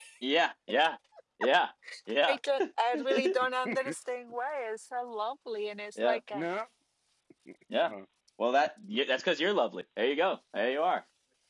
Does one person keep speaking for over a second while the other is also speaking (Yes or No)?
No